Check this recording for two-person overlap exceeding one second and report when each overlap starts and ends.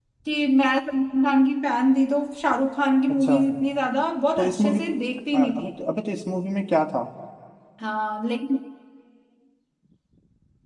none

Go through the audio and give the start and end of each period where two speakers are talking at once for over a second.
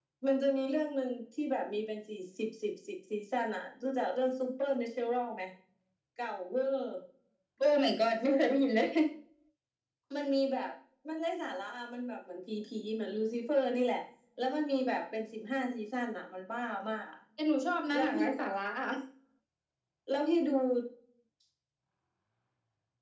none

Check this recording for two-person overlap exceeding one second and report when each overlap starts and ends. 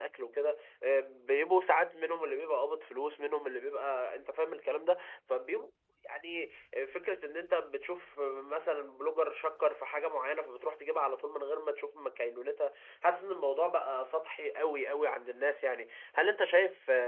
none

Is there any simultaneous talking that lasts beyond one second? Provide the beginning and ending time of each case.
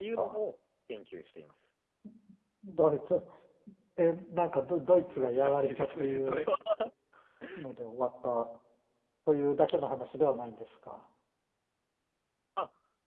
5.1-6.5

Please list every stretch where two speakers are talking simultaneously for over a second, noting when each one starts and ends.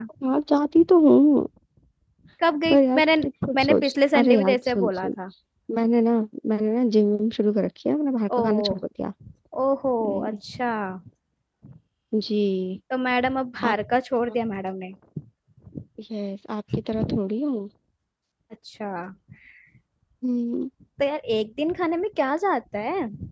3.6-5.1

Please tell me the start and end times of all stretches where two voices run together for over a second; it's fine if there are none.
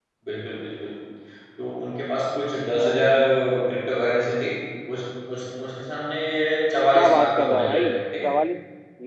6.9-8.3

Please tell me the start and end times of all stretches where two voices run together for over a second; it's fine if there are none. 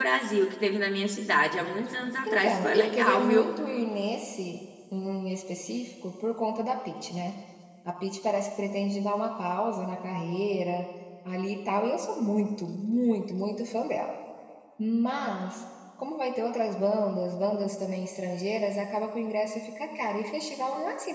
2.2-3.5

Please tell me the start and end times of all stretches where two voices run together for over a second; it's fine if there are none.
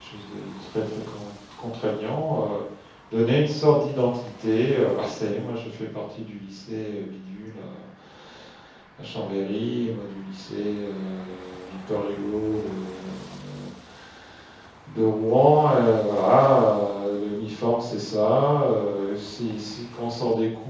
none

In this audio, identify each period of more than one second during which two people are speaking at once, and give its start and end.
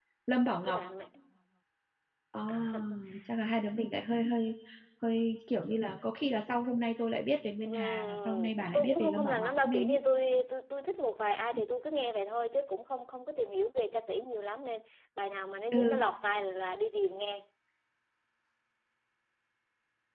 7.6-10.0

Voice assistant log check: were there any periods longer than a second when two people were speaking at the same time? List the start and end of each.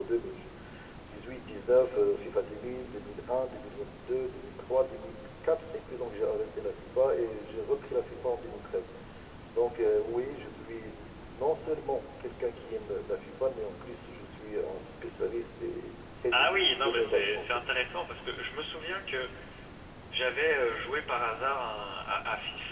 16.3-17.6

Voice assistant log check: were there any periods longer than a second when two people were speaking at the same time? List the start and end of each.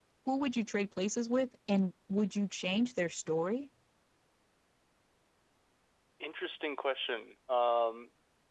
none

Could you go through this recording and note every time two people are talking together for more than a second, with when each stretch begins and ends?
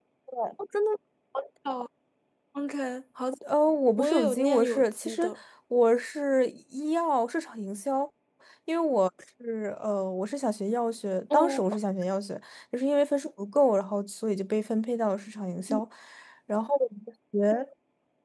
4.0-5.2

